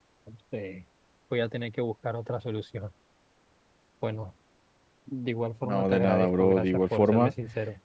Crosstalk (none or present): present